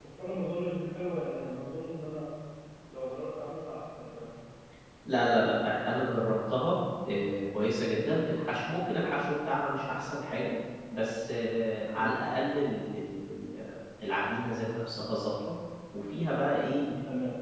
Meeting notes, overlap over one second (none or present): none